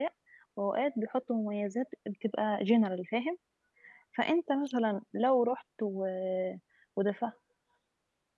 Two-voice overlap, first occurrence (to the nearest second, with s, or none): none